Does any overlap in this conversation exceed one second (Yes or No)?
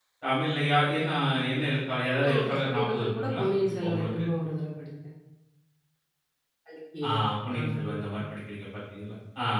Yes